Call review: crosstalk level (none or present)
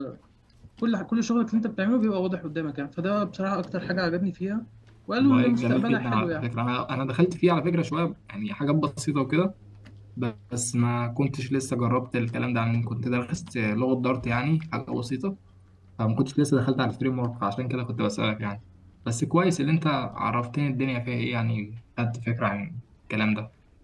present